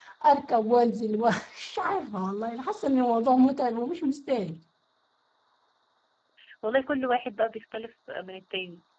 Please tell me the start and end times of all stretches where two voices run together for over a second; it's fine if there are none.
none

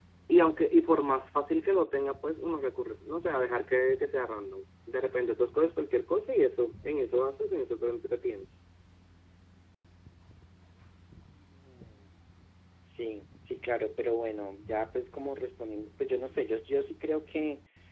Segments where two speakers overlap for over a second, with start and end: none

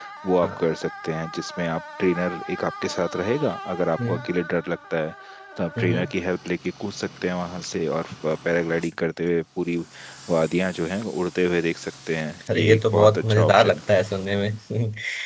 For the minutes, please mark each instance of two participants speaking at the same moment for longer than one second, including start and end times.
12.5-13.8

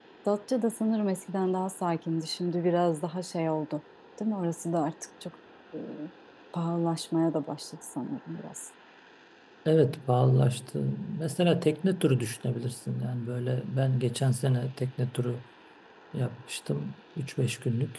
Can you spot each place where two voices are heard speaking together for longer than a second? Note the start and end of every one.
none

